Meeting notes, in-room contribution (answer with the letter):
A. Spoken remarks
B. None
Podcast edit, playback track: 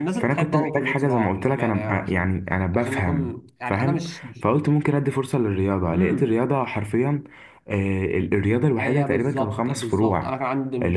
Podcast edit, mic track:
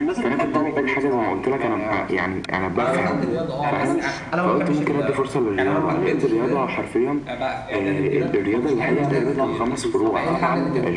A